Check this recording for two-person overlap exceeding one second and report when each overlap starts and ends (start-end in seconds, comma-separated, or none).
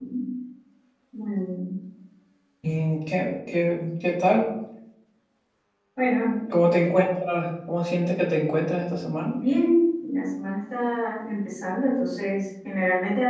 none